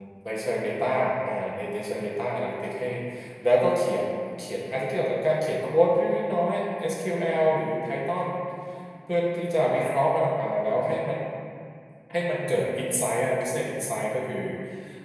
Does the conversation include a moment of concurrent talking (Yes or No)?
No